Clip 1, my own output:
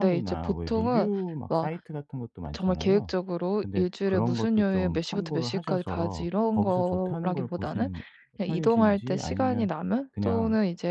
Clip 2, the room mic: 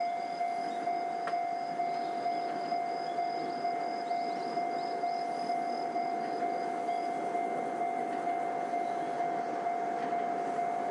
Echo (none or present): none